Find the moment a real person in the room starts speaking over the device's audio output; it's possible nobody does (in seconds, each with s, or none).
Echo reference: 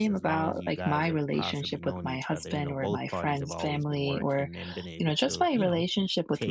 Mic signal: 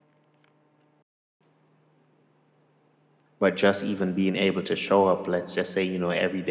3.4 s